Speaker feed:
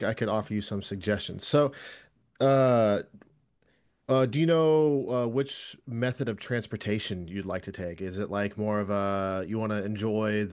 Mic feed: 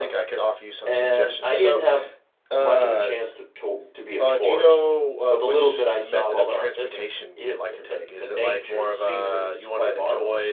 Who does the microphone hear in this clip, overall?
both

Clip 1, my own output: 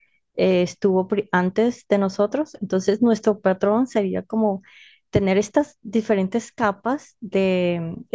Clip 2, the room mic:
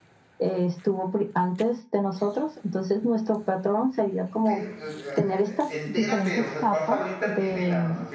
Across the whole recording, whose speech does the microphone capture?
both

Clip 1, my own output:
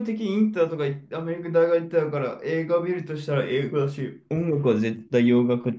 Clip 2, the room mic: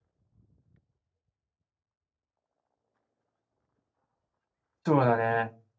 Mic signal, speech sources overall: user only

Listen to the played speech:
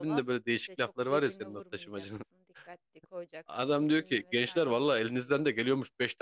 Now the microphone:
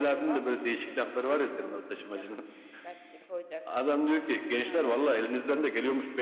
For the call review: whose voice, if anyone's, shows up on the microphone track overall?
echo only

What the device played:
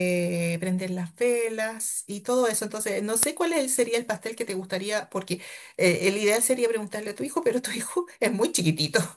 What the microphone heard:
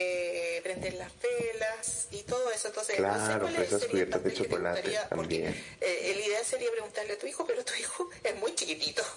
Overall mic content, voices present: both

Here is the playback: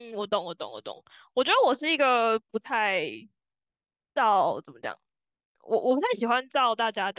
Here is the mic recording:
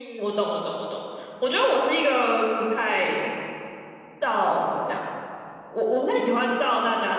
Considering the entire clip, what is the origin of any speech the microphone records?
echo only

